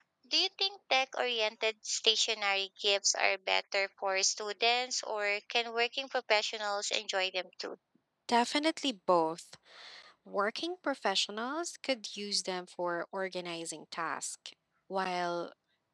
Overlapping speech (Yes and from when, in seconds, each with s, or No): No